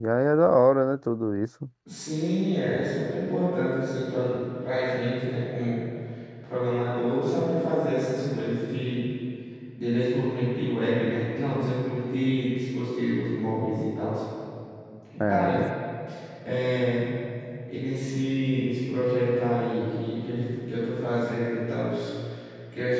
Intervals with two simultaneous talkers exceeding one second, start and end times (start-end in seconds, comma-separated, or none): none